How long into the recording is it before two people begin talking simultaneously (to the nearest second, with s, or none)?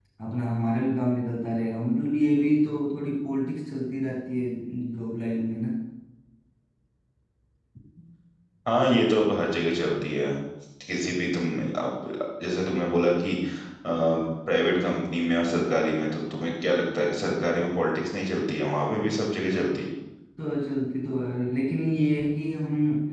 none